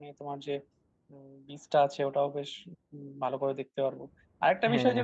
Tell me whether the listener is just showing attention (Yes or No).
Yes